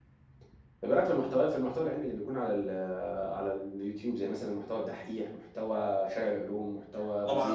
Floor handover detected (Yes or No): Yes